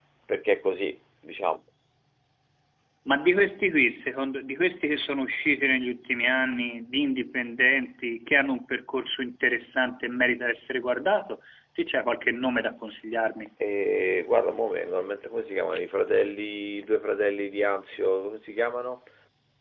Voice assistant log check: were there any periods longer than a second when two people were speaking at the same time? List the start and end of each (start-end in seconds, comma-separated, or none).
none